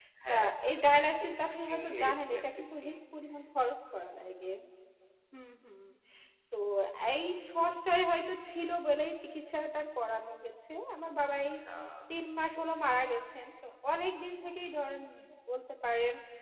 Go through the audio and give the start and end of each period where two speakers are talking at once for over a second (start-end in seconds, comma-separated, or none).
1.2-2.9